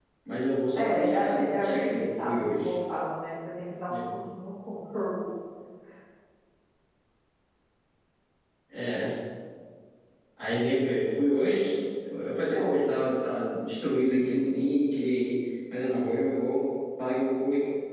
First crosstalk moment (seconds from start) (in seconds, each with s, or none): 0.8 s